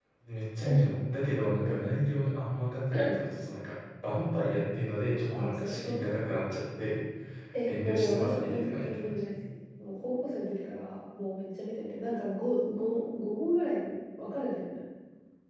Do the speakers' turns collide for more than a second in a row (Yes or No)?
Yes